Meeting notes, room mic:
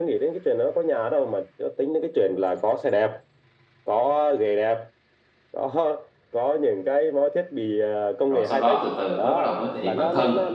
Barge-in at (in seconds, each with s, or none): 8.3 s